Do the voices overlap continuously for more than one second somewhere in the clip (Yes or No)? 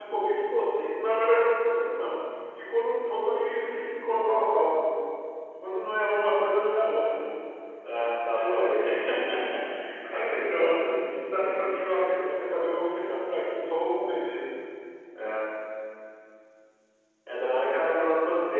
Yes